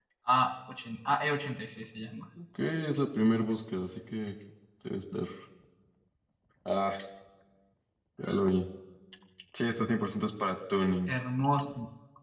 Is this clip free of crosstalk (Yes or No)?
Yes